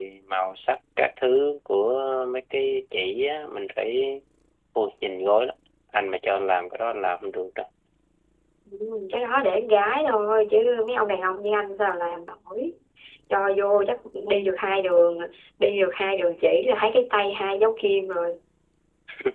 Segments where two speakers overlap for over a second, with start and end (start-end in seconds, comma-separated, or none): none